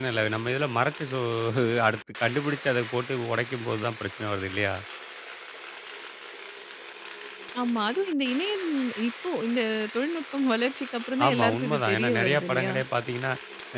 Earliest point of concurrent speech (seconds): 11 s

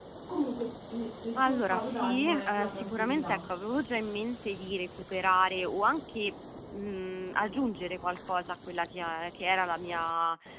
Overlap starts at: 1 s

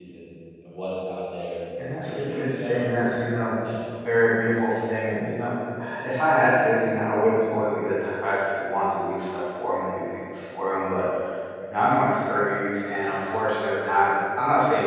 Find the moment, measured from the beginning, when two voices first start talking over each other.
2 s

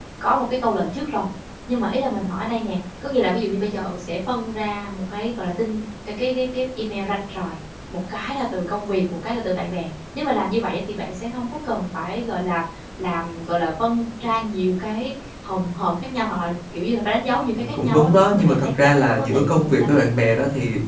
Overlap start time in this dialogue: 18 s

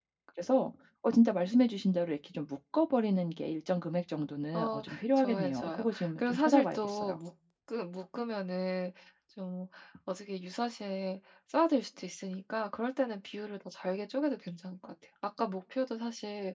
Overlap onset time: 5 s

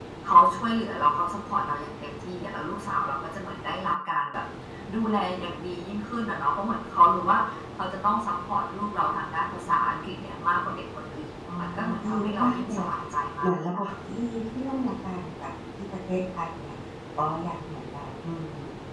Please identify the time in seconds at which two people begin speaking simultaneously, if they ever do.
11 s

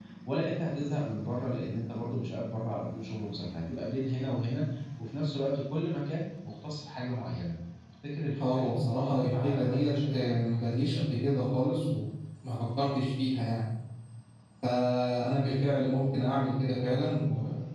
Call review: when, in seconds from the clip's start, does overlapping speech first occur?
8 s

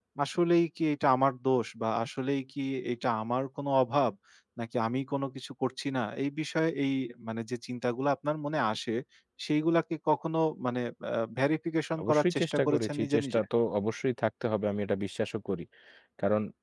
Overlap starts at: 12 s

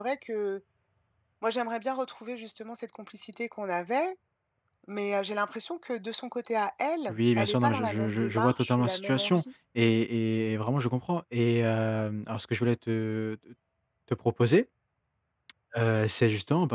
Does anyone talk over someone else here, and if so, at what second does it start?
7 s

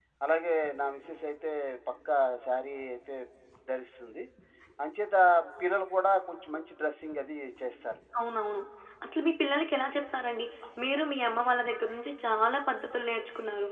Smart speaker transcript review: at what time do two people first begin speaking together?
none

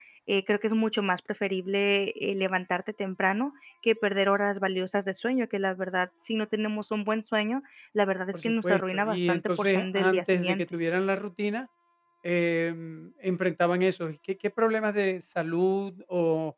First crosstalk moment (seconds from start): 8 s

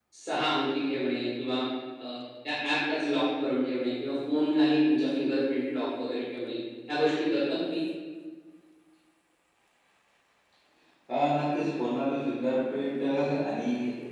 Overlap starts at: none

